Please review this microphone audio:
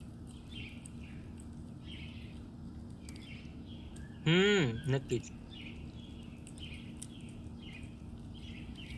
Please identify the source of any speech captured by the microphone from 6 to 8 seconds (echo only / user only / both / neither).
neither